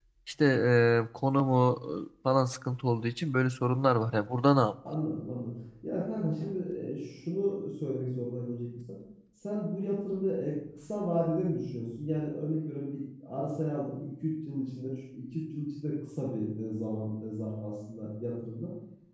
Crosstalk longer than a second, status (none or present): none